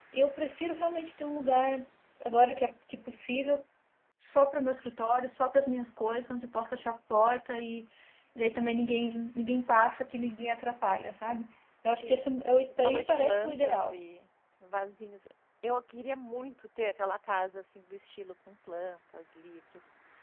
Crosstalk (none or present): present